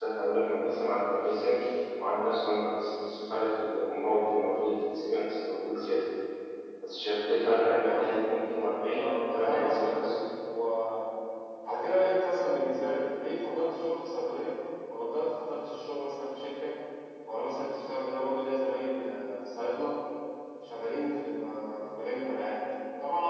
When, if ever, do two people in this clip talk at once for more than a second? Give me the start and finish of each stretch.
7.8-10.1

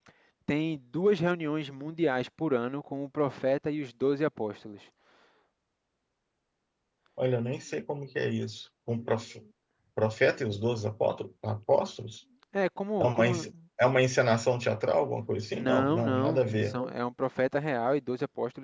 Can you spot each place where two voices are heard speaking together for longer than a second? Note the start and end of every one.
15.5-16.8

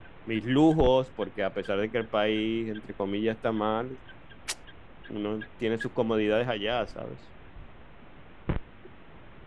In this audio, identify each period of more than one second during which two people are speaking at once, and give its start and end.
none

